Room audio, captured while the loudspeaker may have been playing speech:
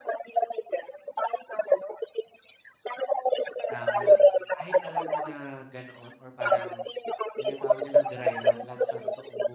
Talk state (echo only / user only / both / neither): both